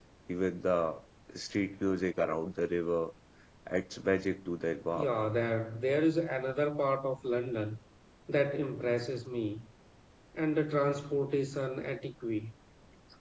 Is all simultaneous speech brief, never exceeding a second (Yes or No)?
Yes